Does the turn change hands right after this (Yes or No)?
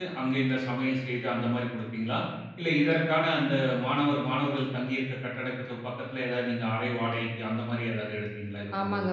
Yes